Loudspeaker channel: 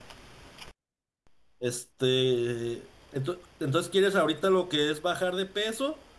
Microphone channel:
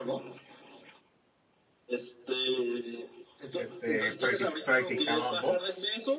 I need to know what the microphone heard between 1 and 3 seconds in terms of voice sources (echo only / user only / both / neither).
echo only